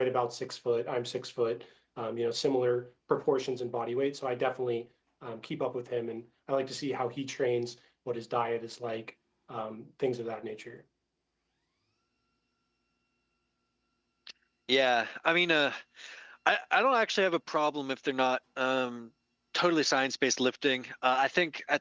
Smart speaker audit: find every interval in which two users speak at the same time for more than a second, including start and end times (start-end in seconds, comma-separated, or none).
none